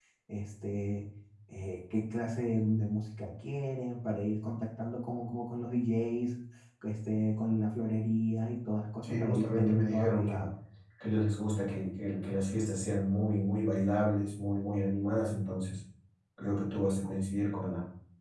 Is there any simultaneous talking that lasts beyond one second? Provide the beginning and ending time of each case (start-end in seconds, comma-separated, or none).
9.0-10.4